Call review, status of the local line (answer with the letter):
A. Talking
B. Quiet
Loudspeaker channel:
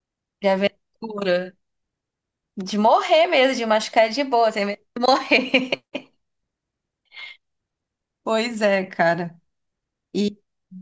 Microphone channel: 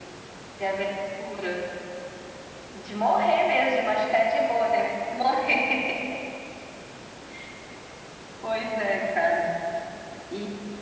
B